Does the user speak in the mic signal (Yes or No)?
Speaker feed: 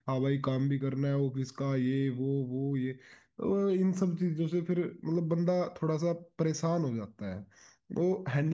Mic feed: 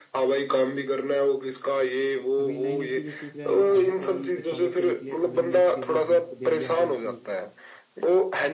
Yes